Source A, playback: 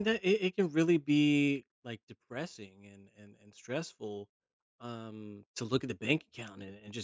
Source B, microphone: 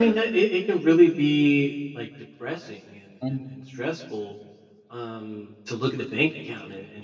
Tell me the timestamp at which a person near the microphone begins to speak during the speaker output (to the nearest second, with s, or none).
3 s